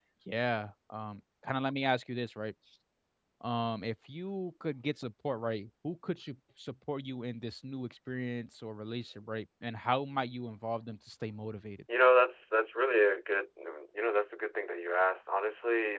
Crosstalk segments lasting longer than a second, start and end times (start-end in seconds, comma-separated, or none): none